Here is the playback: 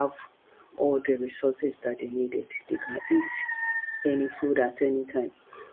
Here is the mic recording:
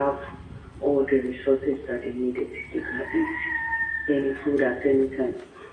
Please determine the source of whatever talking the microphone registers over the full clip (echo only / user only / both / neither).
echo only